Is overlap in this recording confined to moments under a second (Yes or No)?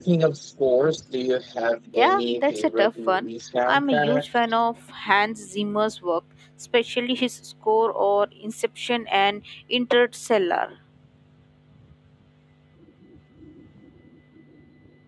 No